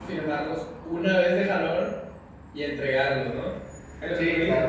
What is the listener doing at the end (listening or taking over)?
taking over